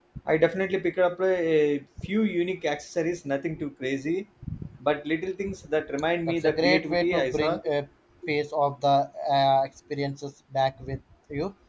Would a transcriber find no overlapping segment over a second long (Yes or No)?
No